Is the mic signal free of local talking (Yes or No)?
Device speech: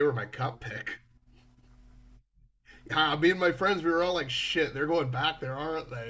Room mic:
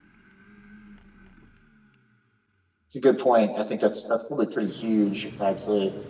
No